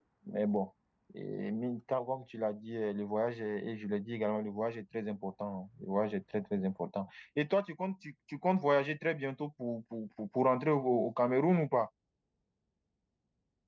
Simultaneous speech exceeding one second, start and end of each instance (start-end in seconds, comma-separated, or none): none